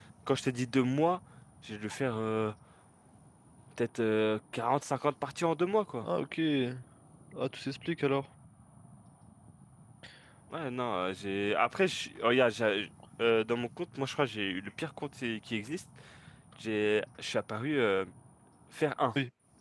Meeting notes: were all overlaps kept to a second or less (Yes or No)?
Yes